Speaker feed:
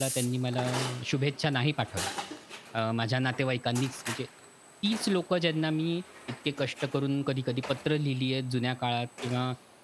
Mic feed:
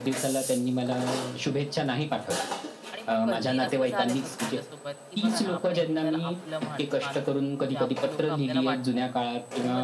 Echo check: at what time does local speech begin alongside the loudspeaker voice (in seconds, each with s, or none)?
2.9 s